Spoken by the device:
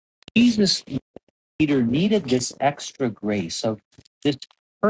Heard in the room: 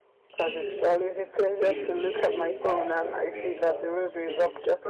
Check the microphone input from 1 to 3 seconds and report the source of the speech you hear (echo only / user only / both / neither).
both